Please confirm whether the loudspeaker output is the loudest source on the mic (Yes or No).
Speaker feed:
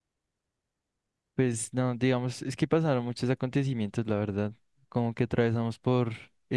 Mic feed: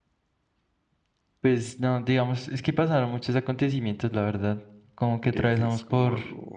Yes